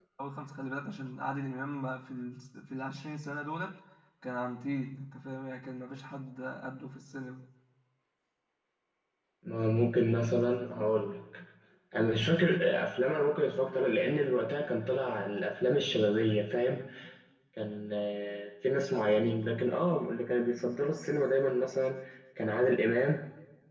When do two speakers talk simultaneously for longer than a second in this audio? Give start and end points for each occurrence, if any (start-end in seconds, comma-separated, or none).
none